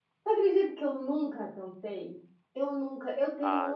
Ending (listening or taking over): listening